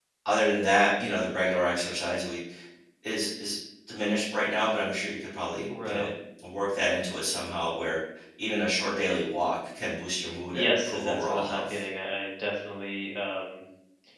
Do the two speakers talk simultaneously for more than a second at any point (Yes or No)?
Yes